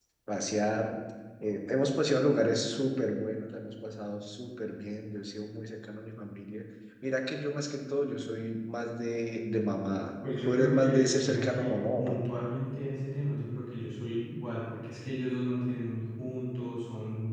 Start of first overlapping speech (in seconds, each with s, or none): 10.4 s